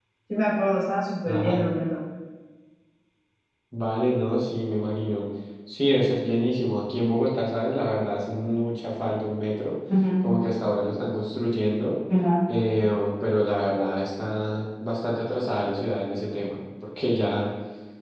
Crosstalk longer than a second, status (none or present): none